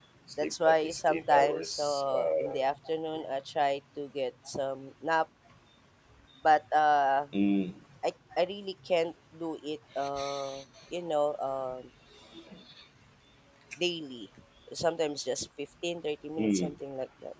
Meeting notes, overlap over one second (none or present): present